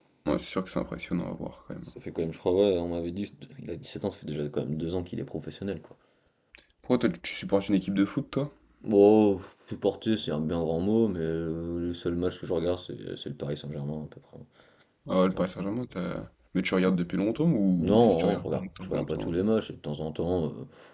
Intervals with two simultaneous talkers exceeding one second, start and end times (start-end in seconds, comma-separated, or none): 17.8-19.4